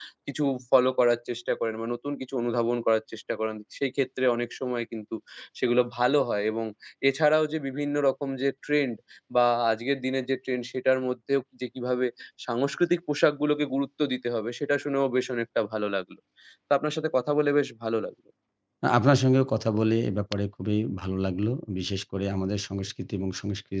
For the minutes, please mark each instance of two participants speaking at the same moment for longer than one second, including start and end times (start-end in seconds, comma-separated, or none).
none